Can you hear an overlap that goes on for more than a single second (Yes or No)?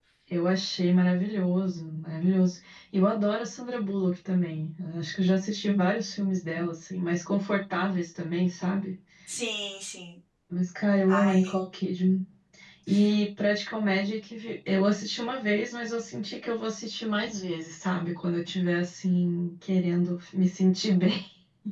No